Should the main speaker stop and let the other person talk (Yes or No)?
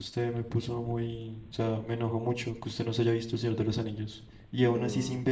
No